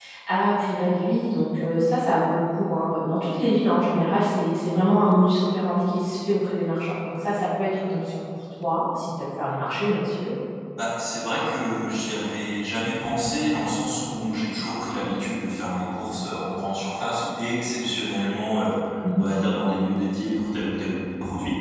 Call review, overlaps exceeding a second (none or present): none